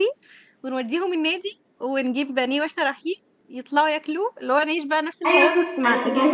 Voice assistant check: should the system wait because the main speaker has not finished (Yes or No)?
No